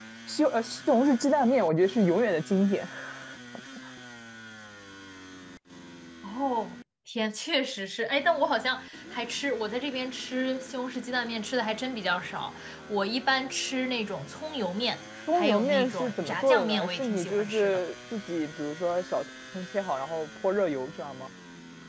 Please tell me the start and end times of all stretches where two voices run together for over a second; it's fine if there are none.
15.3-17.8

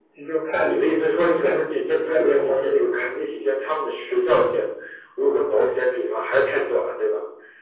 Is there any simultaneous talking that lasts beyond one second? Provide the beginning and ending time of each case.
0.6-3.1

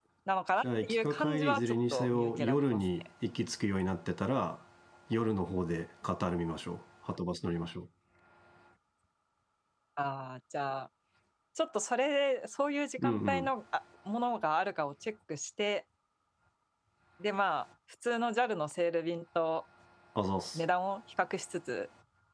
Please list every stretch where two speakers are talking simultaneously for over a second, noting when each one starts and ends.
0.6-2.9

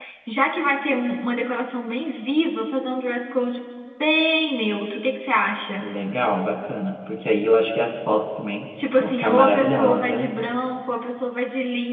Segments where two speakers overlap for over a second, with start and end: 9.0-10.4

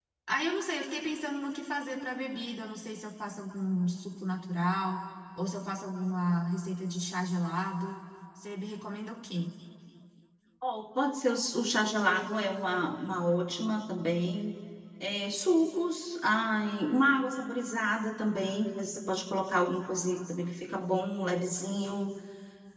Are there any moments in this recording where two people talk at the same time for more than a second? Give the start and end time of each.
none

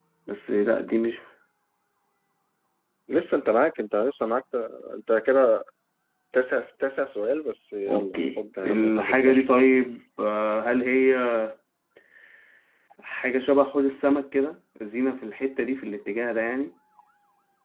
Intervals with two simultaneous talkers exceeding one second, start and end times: 7.9-9.6

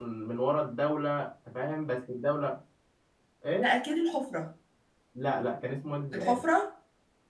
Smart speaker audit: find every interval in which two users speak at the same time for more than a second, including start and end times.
none

